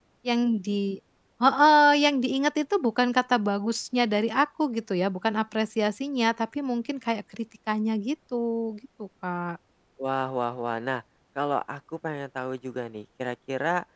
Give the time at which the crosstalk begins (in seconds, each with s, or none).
none